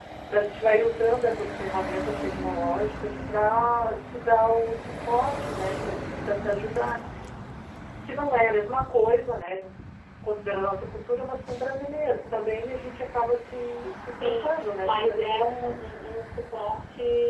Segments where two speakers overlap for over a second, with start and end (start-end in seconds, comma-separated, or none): 14.2-15.7